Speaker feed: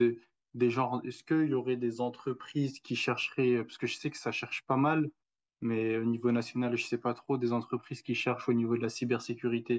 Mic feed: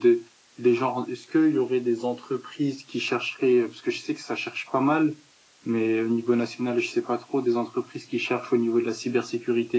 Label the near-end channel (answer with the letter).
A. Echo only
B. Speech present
A